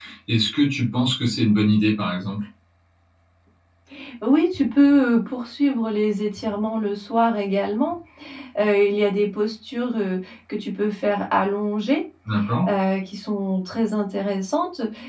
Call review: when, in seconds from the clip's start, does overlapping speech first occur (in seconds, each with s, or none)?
none